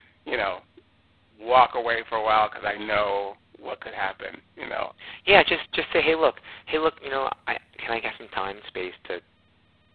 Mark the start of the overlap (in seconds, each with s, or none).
none